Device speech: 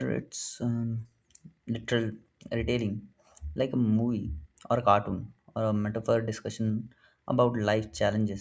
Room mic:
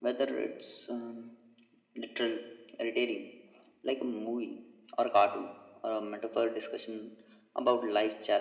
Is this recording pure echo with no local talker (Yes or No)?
Yes